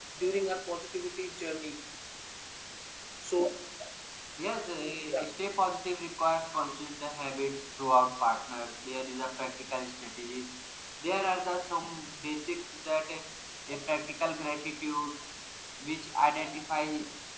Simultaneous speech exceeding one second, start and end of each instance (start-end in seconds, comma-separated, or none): none